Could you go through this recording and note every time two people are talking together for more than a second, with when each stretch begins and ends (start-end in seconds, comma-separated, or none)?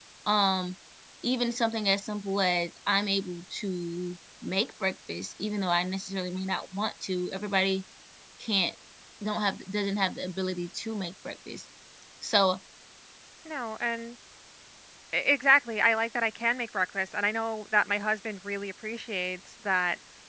none